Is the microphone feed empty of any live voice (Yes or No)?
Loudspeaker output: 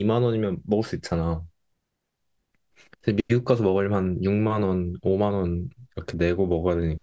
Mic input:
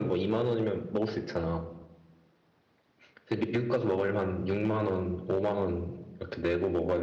Yes